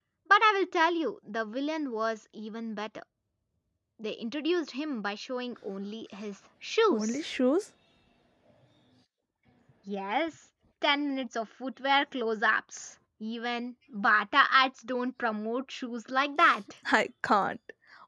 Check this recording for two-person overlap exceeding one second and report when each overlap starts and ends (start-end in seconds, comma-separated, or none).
none